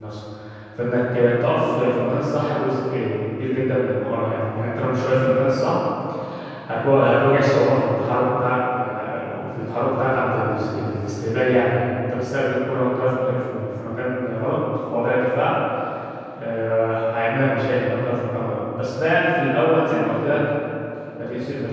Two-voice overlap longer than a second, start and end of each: none

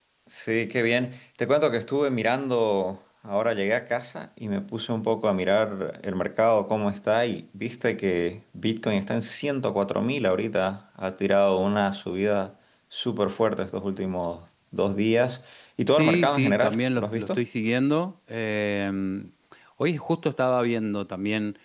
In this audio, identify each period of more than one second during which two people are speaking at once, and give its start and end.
15.9-17.4

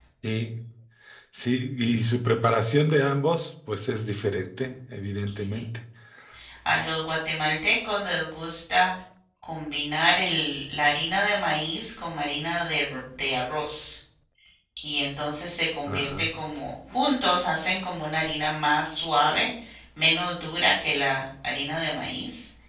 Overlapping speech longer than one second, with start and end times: none

